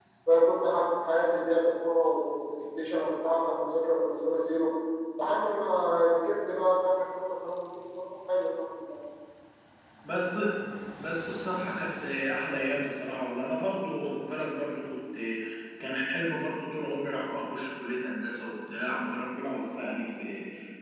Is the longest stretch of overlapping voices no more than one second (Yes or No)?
Yes